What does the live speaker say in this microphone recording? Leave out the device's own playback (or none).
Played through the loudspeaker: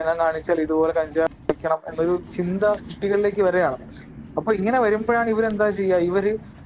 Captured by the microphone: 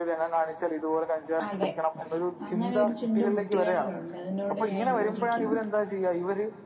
അതെ അങ്ങനൊരു ചിന്ത കുട്ടികൾലു അതിനോട് ഞാൻ യോജിക്ക്ന്നു.